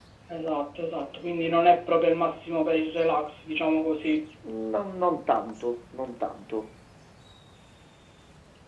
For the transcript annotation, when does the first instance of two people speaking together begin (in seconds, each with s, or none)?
none